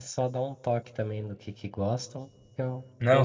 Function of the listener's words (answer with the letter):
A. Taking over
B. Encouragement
A